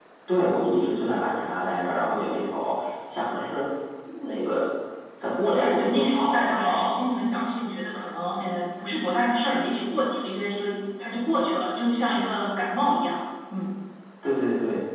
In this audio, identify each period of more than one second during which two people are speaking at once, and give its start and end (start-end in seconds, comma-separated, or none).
5.5-7.0